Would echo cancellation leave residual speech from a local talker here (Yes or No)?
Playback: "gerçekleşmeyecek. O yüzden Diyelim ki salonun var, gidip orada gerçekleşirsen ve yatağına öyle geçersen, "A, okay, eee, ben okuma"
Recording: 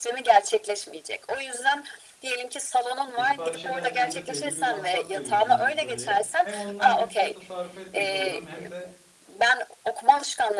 Yes